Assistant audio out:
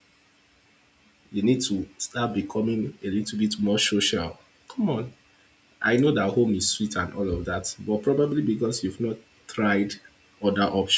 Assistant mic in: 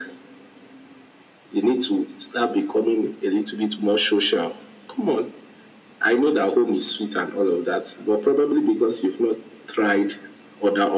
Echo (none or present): present